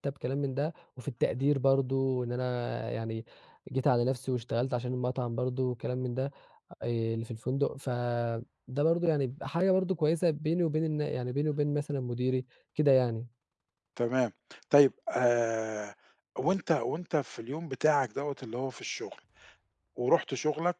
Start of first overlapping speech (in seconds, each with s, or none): none